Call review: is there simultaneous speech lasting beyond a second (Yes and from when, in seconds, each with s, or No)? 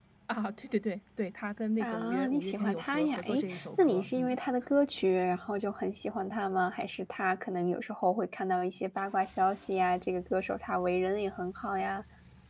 Yes, from 1.8 s